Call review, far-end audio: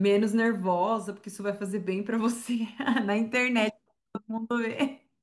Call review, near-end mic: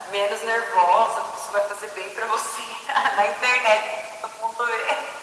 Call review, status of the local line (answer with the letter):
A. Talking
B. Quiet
B